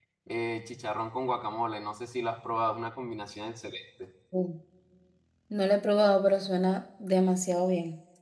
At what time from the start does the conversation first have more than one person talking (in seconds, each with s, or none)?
none